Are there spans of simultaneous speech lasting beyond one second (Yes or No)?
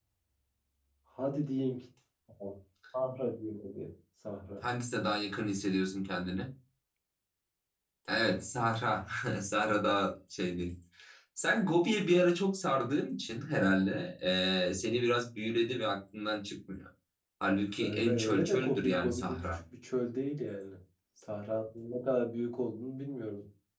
Yes